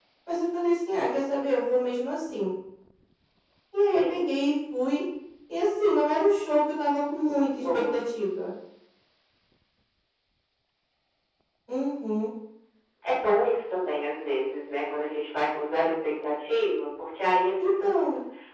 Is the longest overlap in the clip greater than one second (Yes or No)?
No